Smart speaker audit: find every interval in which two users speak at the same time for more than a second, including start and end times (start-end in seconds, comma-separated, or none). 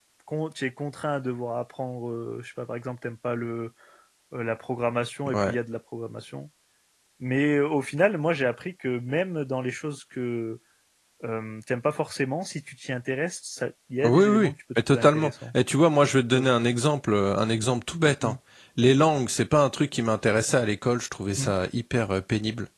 14.0-15.3